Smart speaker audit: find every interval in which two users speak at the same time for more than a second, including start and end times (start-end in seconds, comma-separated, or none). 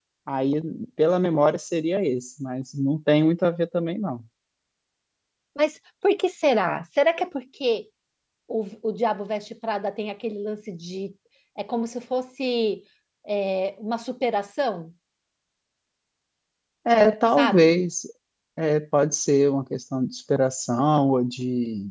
none